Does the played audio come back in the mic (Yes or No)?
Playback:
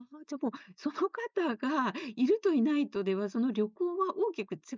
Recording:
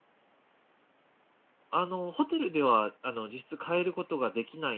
No